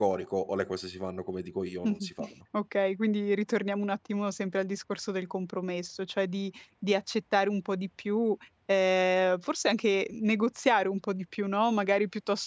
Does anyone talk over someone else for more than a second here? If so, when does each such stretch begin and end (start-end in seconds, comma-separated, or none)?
none